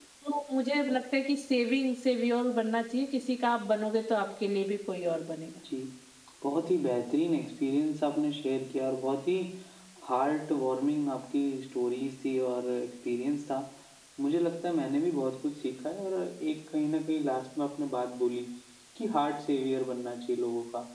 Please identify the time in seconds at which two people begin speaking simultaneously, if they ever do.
none

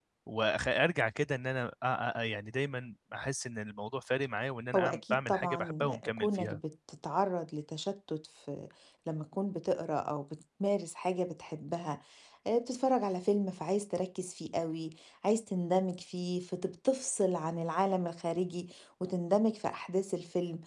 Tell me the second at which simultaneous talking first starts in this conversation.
5 s

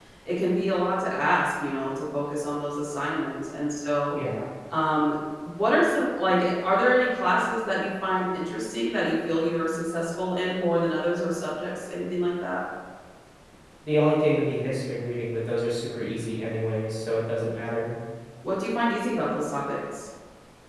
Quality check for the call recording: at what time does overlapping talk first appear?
none

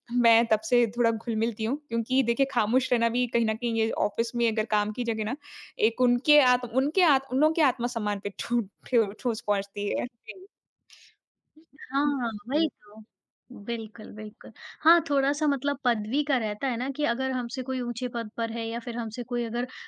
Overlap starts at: none

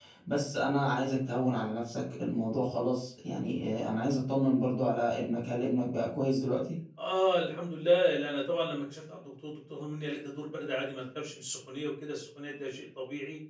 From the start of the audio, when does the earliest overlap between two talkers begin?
none

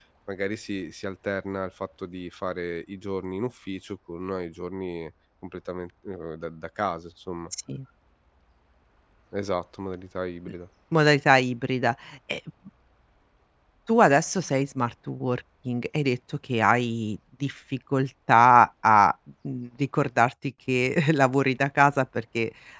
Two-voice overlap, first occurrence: none

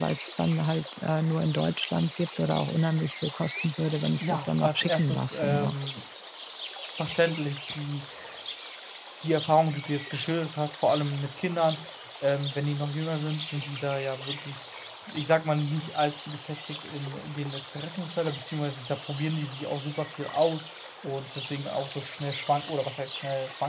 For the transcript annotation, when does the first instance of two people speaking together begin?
4 s

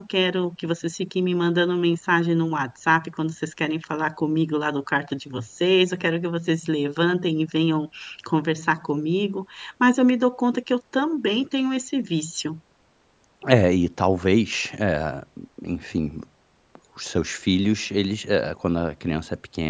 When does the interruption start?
none

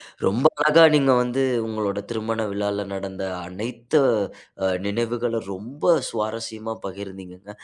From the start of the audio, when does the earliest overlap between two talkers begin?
none

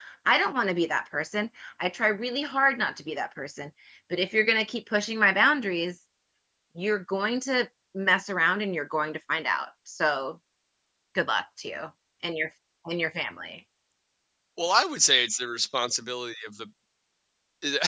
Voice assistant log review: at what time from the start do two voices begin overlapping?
none

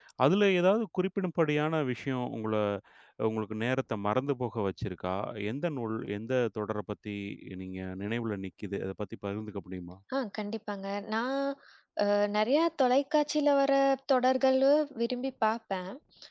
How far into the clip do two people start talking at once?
none

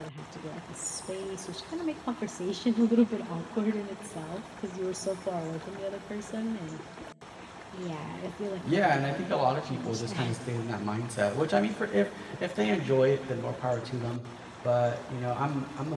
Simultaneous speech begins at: 9 s

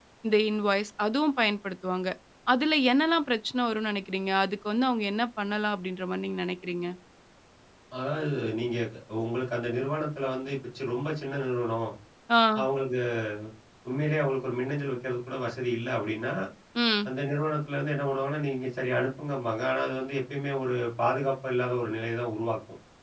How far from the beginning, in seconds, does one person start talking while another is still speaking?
none

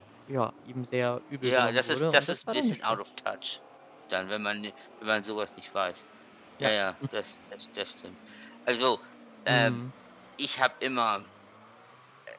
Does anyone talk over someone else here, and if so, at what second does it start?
1 s

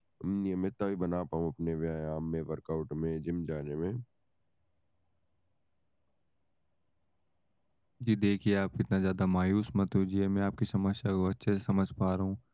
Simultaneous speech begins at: none

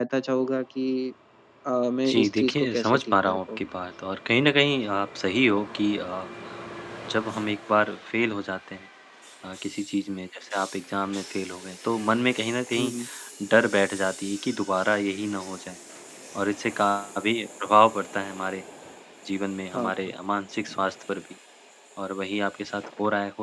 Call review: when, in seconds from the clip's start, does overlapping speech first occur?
2 s

